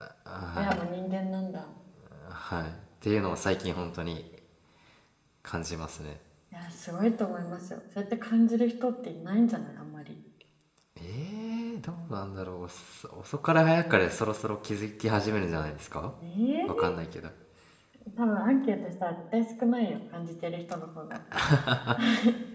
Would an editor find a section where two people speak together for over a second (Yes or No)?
No